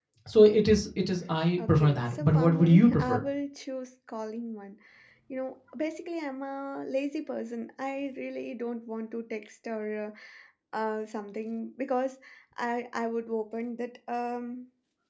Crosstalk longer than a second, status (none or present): present